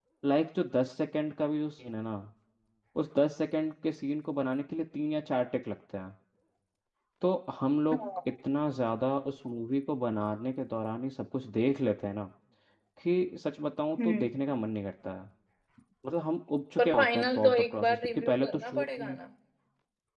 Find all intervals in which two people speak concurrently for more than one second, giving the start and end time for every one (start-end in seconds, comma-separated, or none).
16.8-19.1